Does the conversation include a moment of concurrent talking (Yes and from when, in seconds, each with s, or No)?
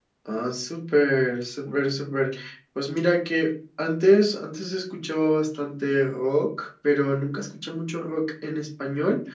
No